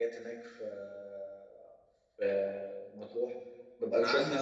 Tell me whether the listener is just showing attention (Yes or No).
No